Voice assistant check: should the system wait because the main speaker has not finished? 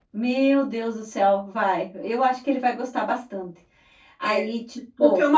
No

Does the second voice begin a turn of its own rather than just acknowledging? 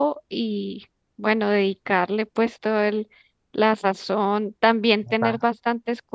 No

